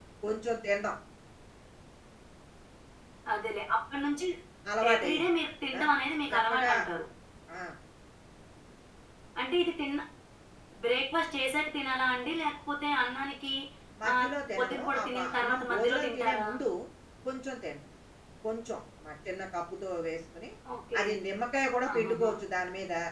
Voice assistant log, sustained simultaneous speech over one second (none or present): present